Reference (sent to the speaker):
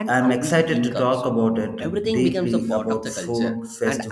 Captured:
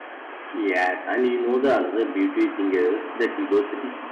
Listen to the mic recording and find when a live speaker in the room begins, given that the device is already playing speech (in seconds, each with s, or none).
0.5 s